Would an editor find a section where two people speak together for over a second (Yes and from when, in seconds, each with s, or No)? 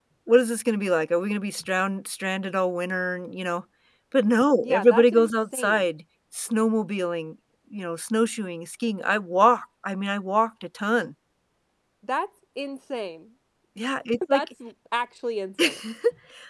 Yes, from 4.6 s